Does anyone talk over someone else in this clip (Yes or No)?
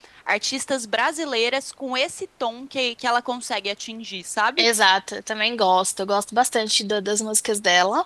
No